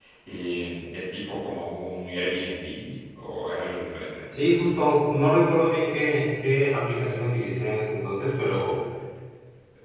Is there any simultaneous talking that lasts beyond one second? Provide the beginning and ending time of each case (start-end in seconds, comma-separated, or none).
none